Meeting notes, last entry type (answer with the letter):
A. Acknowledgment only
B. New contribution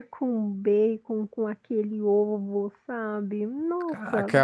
B